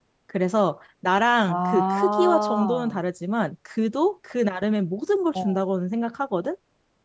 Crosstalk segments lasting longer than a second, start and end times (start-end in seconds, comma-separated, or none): 1.5-3.0